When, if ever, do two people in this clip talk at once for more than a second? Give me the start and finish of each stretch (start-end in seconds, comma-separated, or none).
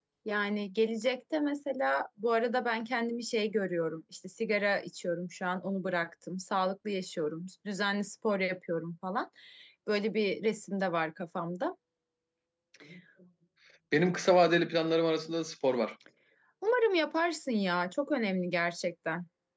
none